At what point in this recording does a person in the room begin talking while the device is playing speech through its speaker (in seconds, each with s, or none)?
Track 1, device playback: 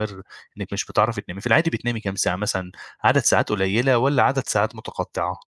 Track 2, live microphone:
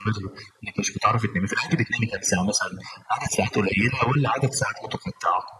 none